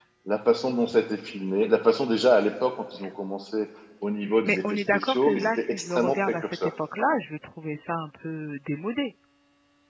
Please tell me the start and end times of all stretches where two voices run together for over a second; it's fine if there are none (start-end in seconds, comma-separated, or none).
4.5-6.7